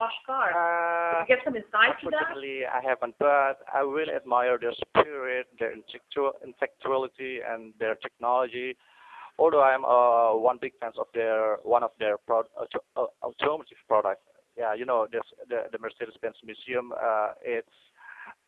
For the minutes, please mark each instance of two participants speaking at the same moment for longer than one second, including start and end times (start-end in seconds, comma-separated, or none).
none